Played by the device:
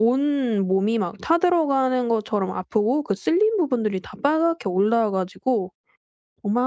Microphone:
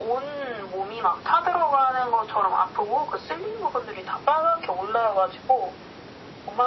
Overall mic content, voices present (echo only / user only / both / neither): echo only